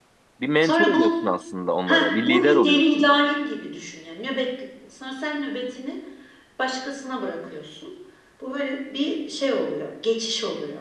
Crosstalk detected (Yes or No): Yes